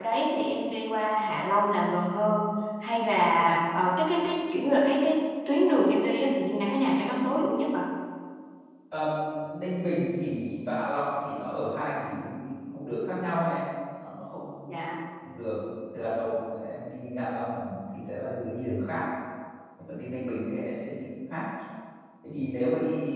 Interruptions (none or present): none